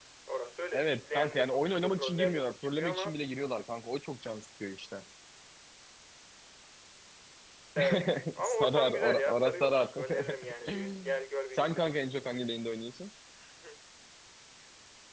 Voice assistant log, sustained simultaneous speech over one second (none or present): present